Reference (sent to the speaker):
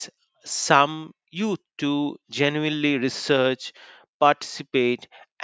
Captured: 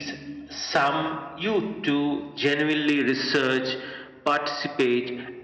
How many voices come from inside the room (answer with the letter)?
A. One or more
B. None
B